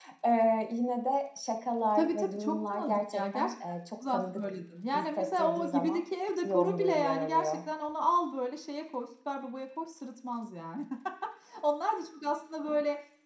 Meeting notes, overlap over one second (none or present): present